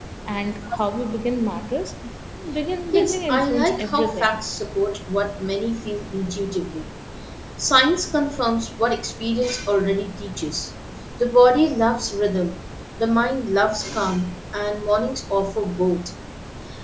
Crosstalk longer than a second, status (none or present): present